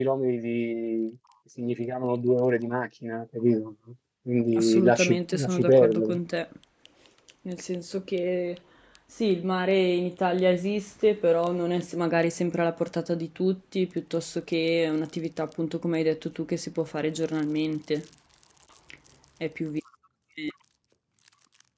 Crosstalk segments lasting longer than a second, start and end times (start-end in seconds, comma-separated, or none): 4.5-6.2